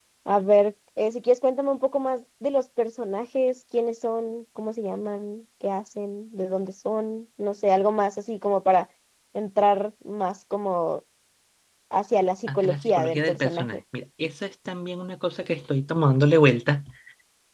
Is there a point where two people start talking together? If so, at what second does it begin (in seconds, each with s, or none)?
12.5 s